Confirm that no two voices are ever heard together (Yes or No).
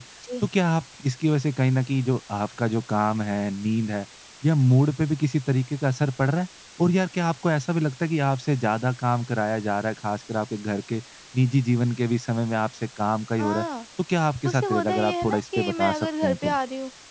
No